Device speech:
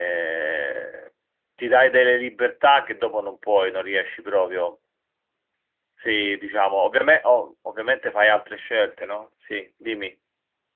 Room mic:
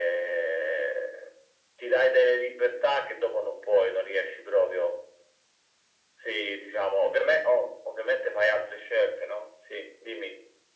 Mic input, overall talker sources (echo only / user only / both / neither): echo only